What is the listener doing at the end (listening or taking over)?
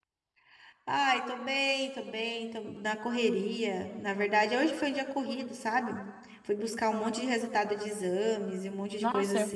taking over